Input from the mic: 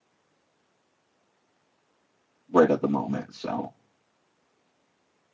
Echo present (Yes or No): No